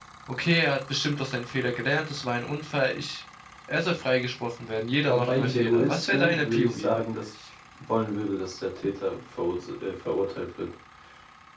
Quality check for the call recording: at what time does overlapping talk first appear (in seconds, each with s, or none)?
5.0 s